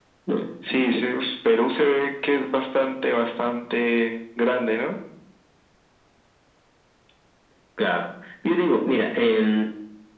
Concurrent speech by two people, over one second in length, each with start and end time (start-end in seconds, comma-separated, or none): none